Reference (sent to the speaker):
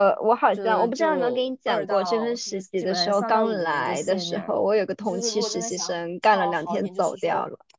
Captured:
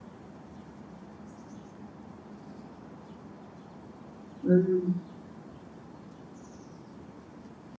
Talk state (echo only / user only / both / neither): user only